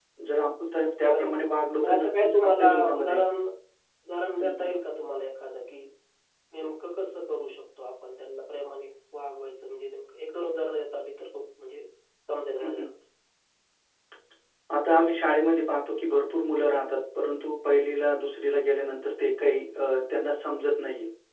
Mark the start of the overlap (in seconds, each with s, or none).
1.1 s